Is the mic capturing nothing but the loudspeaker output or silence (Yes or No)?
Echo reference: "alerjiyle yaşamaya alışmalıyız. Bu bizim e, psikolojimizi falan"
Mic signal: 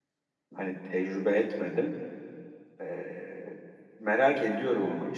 No